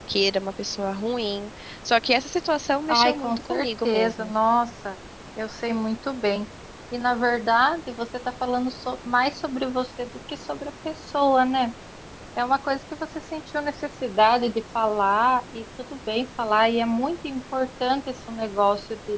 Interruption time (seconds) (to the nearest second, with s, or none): 3 s